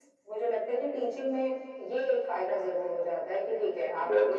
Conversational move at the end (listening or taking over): taking over